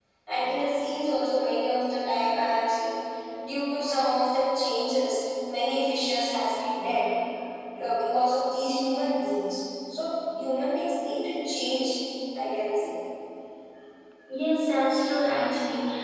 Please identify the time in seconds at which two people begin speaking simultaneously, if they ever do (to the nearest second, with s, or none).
none